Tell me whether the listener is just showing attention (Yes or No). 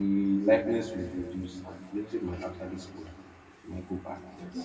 No